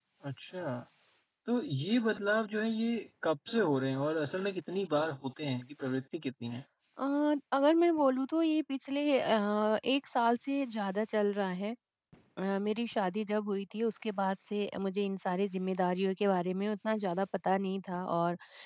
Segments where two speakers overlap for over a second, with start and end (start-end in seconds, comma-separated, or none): none